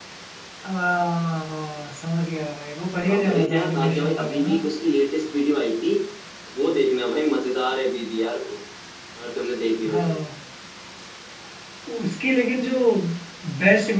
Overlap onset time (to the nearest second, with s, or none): 3 s